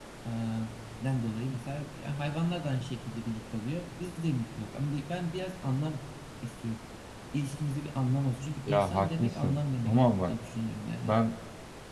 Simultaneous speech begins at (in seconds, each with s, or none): 8.7 s